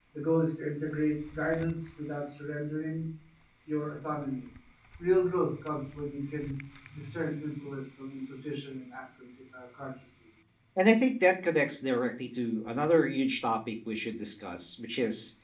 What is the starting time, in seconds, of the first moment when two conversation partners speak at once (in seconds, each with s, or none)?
none